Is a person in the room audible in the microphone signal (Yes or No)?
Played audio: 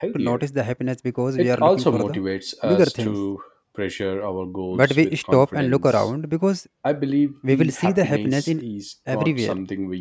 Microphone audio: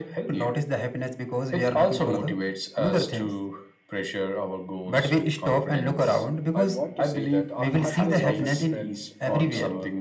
Yes